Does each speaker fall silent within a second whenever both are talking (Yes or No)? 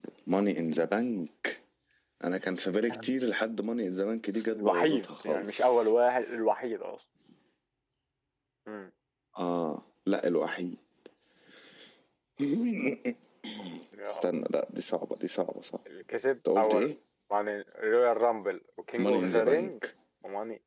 No